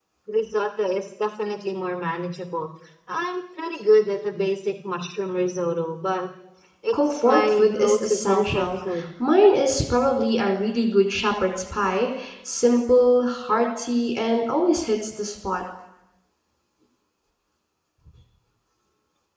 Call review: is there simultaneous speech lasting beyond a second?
Yes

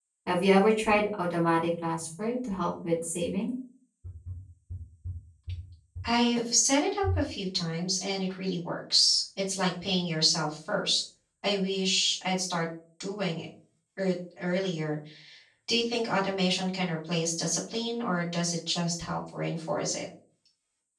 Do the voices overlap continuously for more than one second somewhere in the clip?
No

